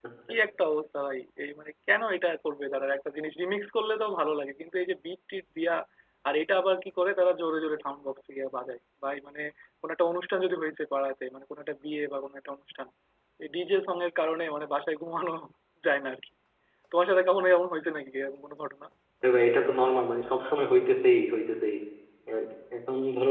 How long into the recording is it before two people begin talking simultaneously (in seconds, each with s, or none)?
none